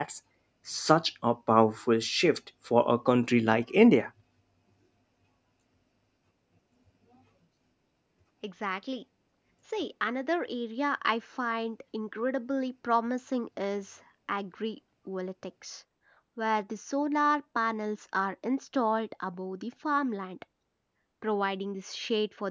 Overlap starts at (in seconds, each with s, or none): none